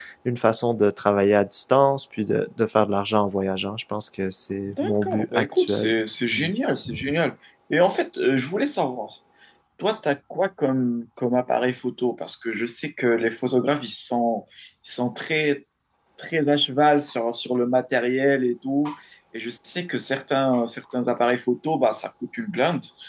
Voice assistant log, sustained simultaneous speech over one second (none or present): present